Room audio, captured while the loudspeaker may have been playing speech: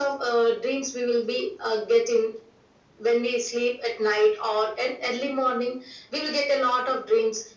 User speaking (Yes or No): No